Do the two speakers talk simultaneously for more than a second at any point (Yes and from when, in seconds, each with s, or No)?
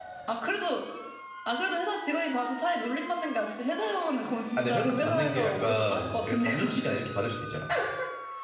Yes, from 4.6 s